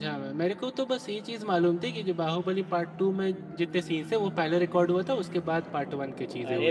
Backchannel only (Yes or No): No